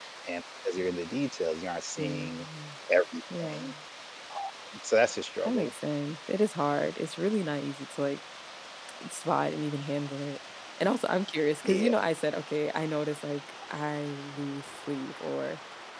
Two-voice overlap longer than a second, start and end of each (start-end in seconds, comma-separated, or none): none